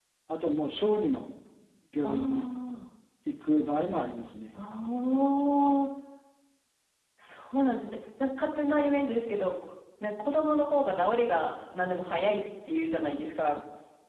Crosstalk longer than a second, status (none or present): none